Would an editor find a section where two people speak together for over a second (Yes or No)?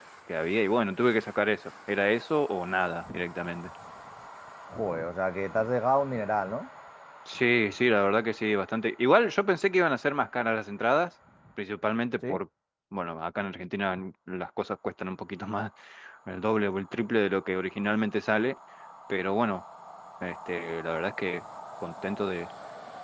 No